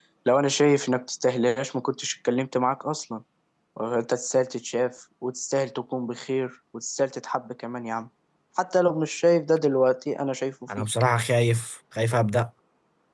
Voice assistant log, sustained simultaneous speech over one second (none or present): none